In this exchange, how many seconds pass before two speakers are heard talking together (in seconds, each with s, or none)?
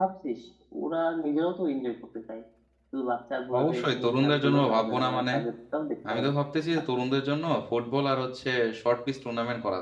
3.6 s